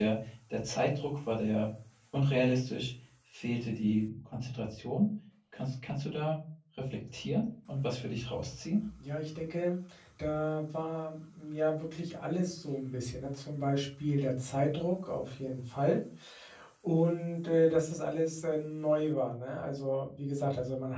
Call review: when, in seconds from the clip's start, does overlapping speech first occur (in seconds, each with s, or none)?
none